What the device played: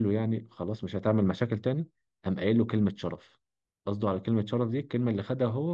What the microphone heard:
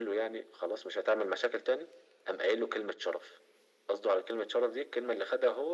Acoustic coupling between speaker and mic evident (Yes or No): Yes